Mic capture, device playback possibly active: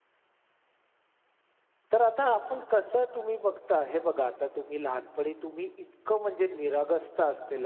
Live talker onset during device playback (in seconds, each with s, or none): 1.9 s